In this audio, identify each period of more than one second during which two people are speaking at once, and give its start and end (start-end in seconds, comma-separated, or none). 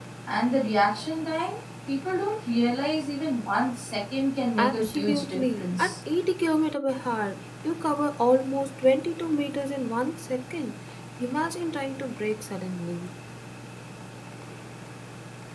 4.6-5.9